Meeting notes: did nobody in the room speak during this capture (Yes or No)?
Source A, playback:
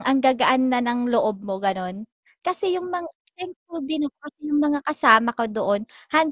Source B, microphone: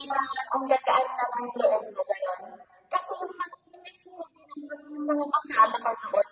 Yes